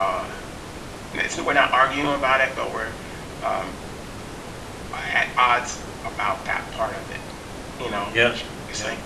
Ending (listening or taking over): listening